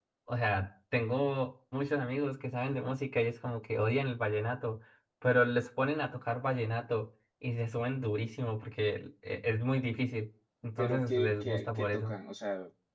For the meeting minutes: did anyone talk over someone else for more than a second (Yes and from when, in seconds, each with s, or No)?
Yes, from 10.8 s